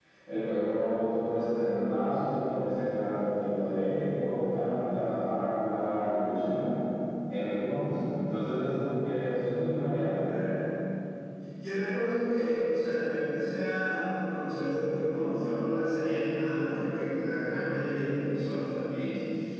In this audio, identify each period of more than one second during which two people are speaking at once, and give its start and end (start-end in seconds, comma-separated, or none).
none